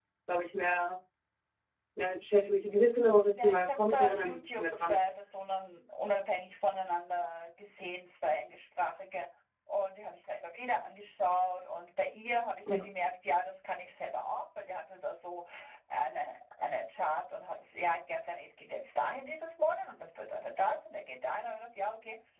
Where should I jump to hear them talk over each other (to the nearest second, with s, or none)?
3 s